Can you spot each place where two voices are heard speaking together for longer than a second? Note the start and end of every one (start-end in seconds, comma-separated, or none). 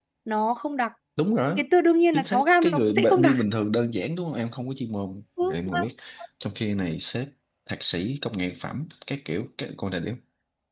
2.1-3.4